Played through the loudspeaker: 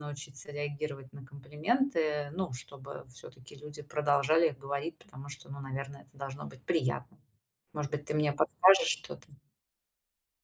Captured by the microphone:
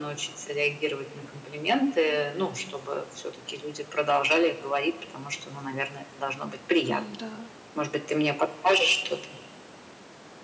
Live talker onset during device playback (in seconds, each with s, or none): 6.9 s